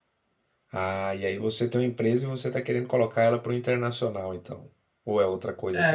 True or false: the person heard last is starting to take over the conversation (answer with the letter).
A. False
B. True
B